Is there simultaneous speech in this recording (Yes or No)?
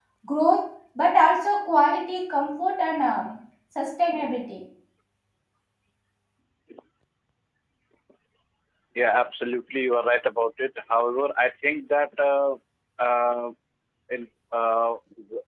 No